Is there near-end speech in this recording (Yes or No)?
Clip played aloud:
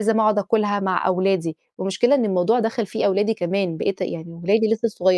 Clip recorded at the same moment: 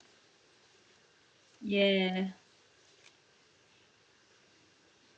Yes